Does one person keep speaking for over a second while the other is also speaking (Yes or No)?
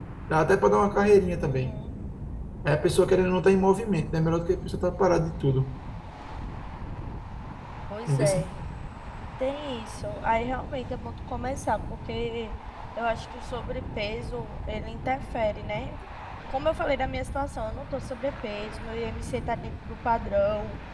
No